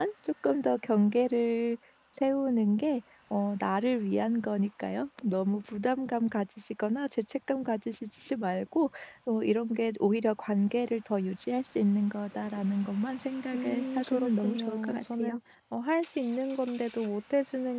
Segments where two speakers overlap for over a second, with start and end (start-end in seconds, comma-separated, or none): 13.5-15.4